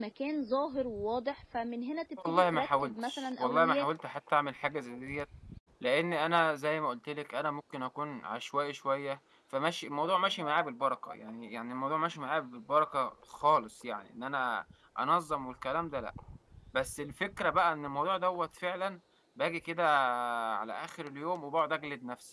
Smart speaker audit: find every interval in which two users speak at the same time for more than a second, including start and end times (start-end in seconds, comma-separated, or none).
2.3-3.9